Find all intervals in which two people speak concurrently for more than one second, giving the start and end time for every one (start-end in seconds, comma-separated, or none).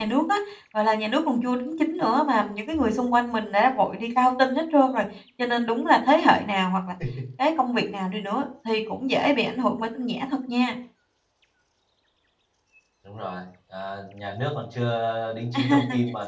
none